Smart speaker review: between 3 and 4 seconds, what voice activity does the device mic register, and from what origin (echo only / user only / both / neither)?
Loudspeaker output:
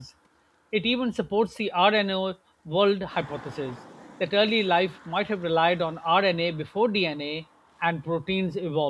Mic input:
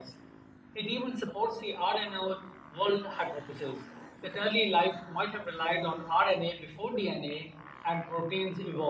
echo only